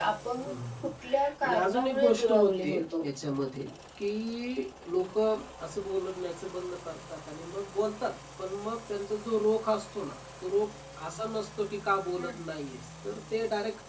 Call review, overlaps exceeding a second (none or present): present